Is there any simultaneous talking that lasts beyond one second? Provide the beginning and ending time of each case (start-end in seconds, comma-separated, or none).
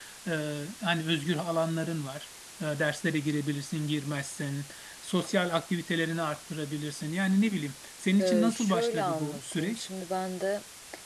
8.2-9.9